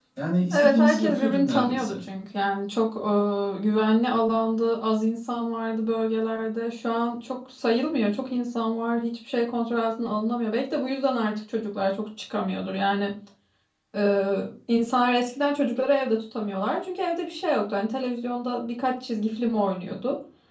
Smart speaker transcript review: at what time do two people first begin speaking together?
0.5 s

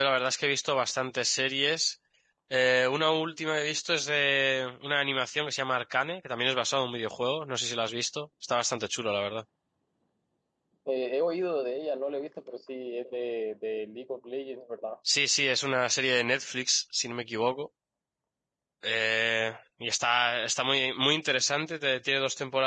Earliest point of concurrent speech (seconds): none

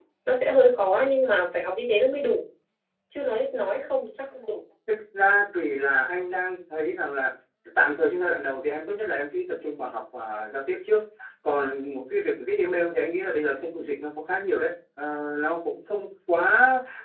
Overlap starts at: none

